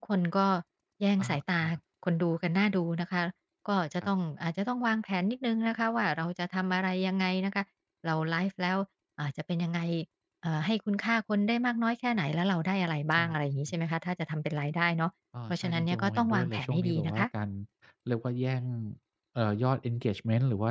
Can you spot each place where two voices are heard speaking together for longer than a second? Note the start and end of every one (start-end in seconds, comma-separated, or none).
15.5-17.2